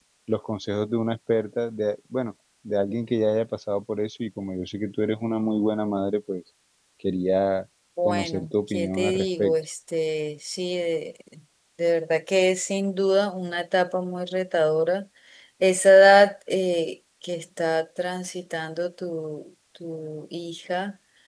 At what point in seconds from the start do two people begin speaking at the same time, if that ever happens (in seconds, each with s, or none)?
8.0 s